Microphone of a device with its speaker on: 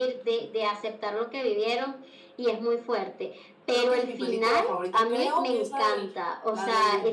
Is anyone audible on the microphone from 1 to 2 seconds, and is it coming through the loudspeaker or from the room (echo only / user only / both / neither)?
echo only